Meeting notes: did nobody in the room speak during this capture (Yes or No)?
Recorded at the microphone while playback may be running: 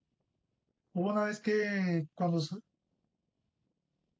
No